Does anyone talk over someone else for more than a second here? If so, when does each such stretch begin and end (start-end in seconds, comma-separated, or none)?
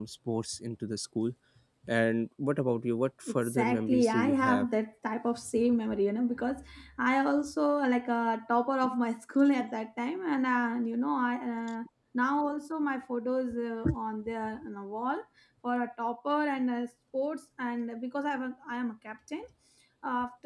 3.3-4.7